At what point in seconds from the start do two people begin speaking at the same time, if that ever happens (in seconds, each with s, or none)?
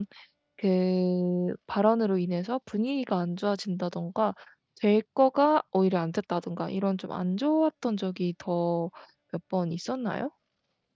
none